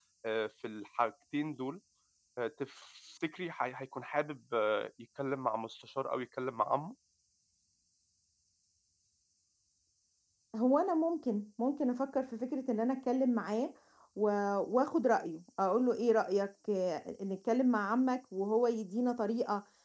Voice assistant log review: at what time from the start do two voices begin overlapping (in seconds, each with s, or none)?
none